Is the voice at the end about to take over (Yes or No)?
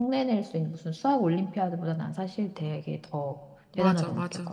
Yes